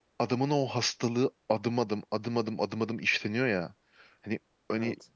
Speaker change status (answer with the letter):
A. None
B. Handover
A